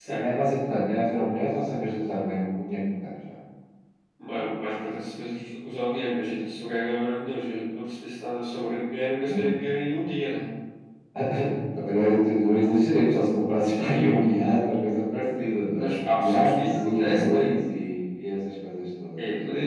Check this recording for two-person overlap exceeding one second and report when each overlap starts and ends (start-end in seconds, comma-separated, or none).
15.8-17.5